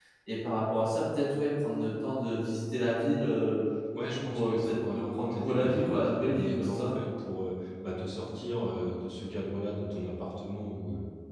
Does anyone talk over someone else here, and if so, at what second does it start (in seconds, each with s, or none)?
4.2 s